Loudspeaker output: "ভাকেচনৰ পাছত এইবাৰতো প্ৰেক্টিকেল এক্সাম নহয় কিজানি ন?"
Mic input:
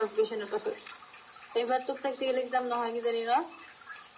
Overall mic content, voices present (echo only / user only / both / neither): echo only